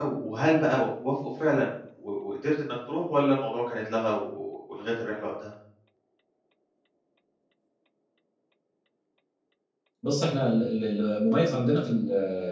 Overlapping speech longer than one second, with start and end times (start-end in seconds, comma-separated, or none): none